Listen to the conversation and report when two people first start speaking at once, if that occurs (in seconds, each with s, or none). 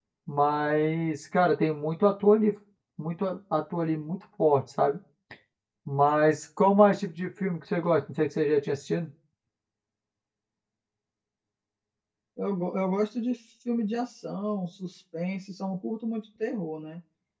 none